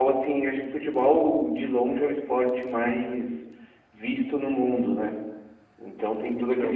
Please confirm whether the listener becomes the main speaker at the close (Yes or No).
Yes